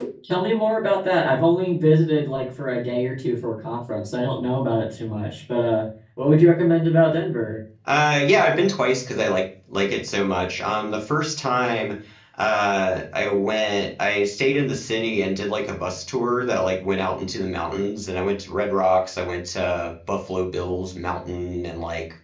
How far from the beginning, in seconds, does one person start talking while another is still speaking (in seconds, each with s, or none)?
none